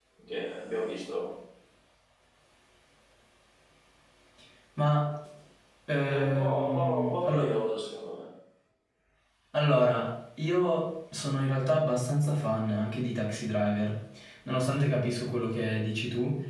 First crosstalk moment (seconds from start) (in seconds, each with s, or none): 6.1 s